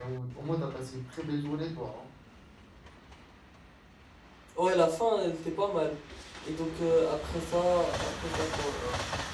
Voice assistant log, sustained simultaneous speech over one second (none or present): none